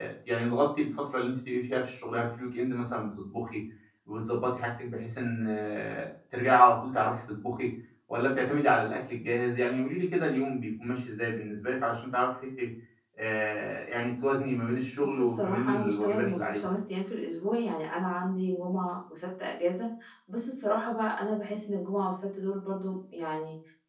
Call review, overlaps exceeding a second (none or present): present